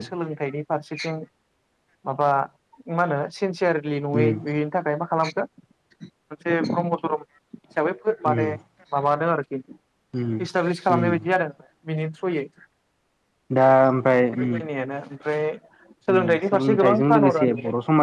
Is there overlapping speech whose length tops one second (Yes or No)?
Yes